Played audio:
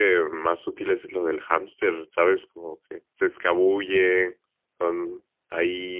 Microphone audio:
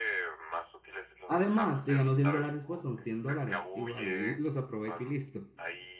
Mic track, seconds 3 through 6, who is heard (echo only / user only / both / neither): both